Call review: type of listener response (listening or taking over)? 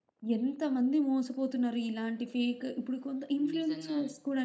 listening